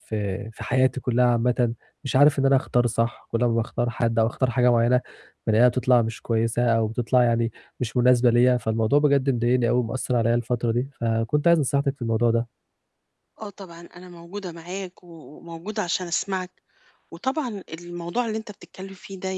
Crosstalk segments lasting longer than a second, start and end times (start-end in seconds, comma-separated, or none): none